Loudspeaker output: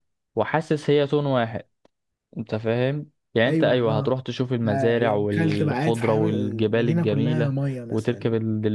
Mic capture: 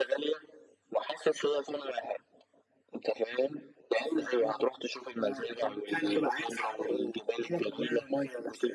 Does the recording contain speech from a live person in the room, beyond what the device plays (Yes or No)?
No